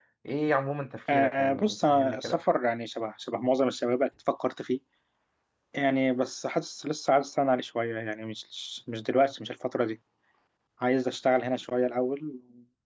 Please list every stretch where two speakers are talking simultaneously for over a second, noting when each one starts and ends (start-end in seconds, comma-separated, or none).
1.1-2.4